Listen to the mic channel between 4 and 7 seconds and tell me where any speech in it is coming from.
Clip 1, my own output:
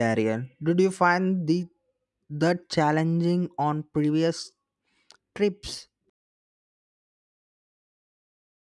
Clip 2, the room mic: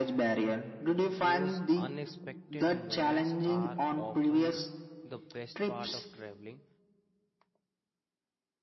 both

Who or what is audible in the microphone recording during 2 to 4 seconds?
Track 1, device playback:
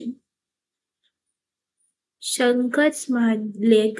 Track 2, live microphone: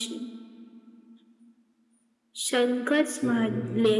both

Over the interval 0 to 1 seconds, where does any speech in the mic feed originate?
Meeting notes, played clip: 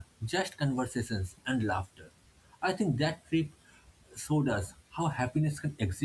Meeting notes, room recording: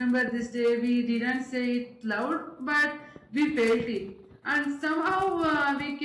user only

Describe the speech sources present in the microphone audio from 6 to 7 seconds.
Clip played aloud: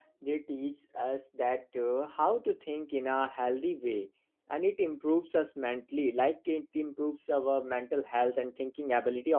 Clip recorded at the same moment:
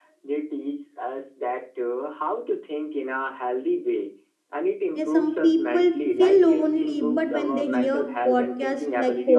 both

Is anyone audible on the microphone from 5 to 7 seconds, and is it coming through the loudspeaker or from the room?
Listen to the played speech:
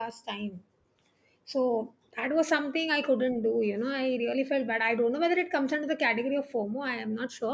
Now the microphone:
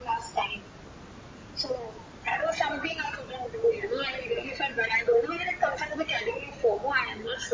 echo only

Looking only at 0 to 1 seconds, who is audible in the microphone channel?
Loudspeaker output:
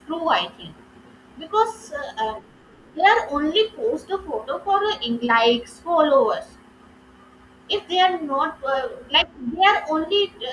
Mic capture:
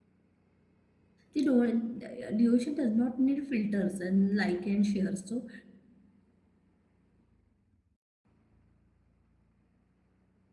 neither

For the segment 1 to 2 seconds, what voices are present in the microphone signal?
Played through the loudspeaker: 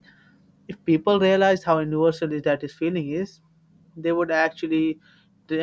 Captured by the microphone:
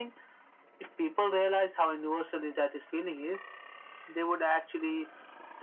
echo only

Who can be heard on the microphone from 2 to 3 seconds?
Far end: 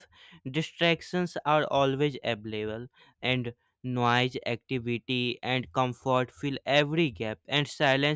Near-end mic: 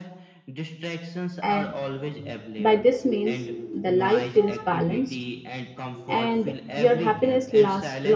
both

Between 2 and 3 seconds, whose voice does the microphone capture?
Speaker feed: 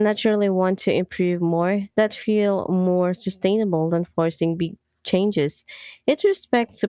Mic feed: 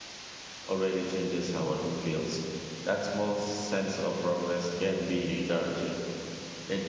user only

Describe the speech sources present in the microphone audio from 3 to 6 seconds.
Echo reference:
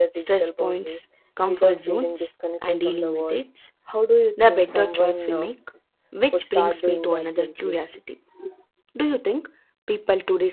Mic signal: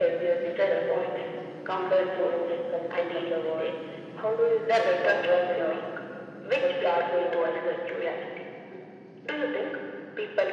echo only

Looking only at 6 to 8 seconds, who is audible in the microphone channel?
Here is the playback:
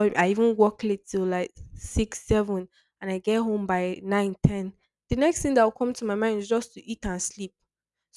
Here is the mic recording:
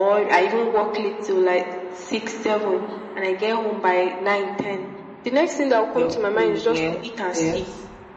both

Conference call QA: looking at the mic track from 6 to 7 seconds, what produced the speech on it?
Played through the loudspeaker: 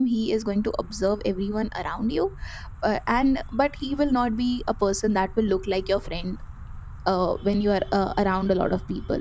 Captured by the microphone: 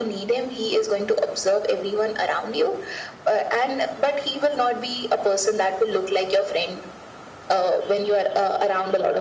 echo only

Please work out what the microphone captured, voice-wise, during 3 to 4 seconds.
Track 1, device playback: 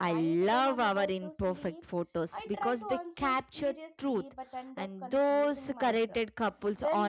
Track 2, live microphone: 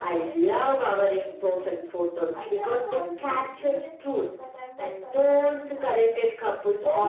echo only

